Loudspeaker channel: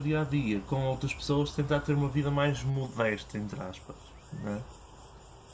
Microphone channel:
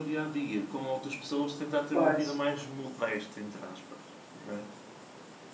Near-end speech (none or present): present